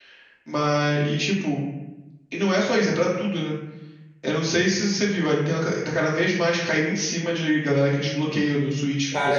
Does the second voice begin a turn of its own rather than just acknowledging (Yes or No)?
Yes